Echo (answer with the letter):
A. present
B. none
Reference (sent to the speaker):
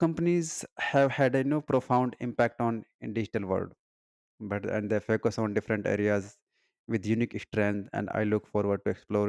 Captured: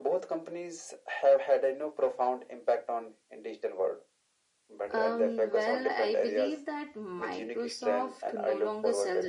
A